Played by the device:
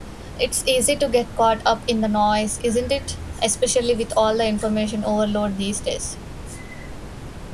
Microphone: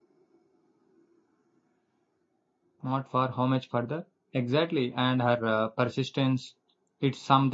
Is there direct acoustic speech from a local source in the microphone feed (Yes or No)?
Yes